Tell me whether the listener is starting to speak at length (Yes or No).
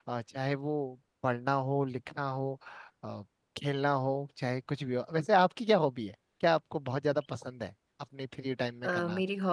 Yes